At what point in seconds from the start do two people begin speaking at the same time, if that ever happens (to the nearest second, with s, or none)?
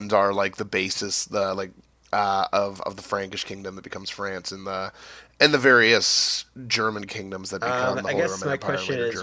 8 s